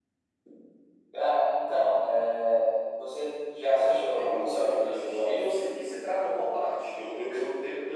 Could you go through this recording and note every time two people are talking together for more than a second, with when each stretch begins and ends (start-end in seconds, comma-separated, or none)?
3.6-5.5